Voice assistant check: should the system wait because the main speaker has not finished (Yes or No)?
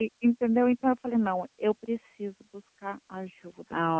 No